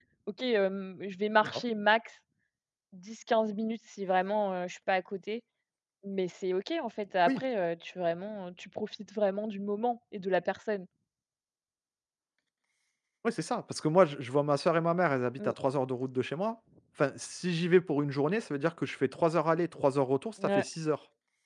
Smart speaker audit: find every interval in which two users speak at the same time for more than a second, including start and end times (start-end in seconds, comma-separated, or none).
none